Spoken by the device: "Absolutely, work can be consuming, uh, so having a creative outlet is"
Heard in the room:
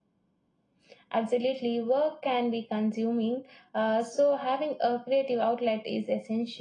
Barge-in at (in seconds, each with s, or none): none